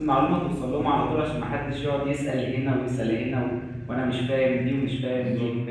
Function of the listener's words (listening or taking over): listening